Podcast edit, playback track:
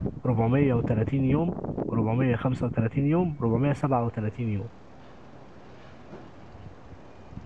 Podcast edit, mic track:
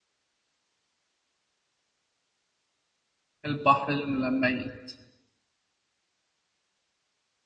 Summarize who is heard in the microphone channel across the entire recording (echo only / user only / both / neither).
user only